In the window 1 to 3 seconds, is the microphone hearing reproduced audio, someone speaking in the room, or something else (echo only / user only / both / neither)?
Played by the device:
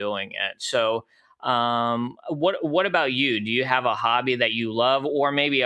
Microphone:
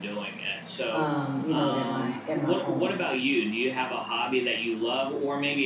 both